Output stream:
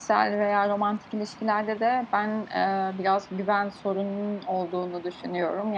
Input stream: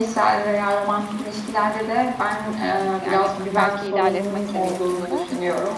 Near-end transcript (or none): yani, belki ilerletmek seviyesinde,